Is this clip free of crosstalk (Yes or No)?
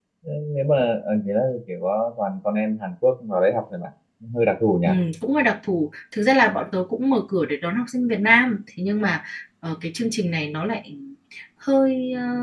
Yes